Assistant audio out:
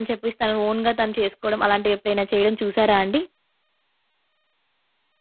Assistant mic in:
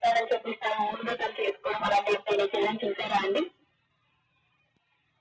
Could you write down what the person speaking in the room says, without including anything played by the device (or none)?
none